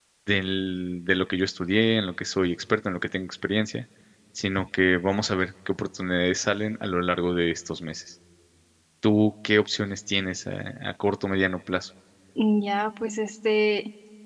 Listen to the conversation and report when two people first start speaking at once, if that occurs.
none

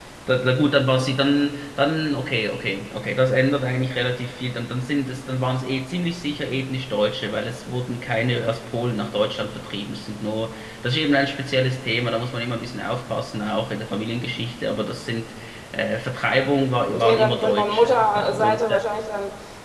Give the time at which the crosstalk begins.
16.9 s

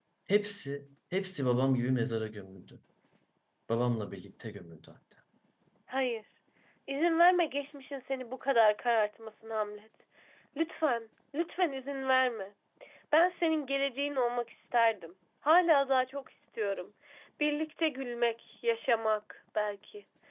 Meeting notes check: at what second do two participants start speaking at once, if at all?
none

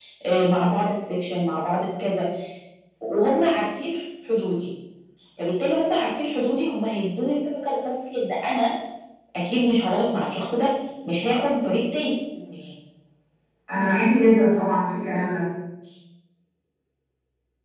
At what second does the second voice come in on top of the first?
none

